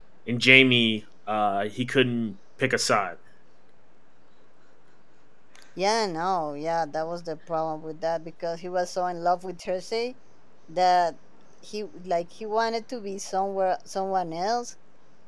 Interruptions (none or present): none